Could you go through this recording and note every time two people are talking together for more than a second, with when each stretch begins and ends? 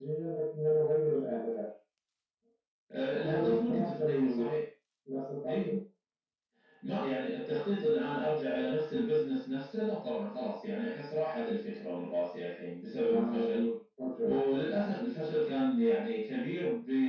3.2-4.5

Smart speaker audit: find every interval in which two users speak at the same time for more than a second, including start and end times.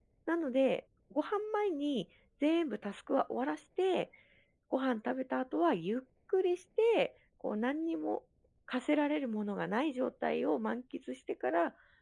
none

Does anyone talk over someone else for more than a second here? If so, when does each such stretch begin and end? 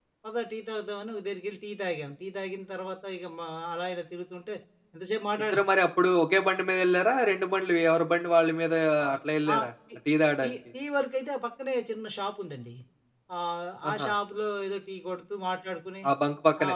none

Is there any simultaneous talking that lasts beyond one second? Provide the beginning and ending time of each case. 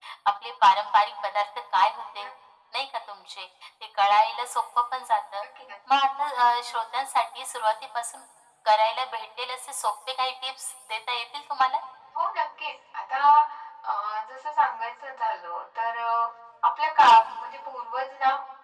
none

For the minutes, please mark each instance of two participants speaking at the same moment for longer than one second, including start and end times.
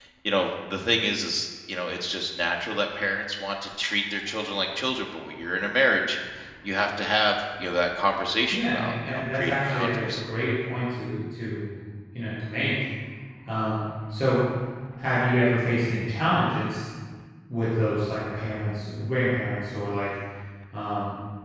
8.5-10.1

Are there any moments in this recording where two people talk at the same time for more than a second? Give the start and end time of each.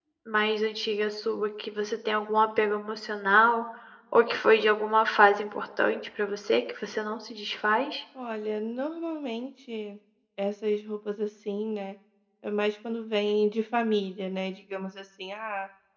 none

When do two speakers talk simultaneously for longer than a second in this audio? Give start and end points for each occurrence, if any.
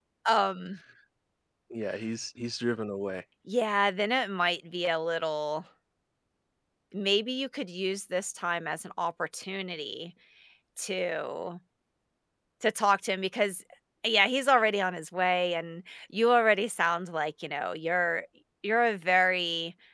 none

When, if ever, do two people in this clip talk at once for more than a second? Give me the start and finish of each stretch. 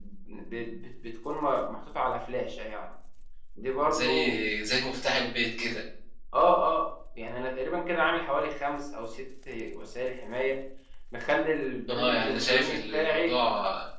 11.9-13.3

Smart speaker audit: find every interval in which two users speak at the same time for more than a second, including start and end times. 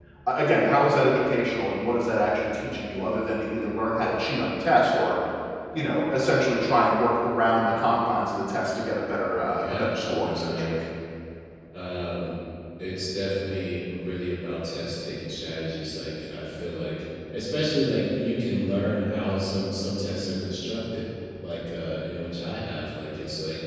9.6-10.8

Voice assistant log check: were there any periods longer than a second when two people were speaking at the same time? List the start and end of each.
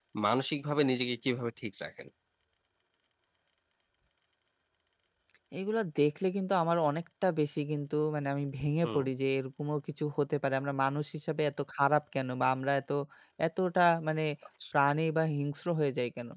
none

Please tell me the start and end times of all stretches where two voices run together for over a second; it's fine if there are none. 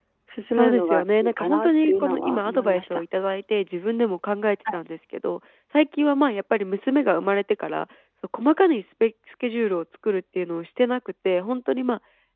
0.6-3.0

